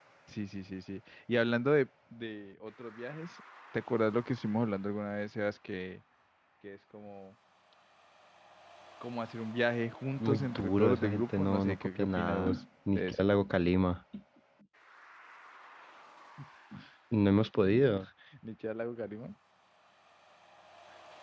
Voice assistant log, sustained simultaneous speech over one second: present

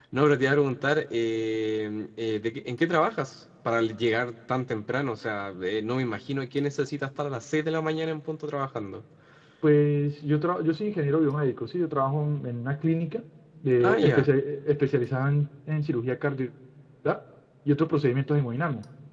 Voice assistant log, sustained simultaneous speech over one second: none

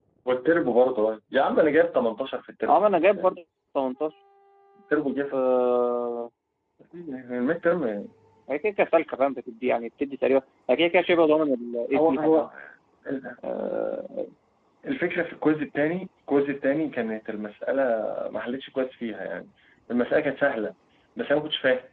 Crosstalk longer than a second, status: none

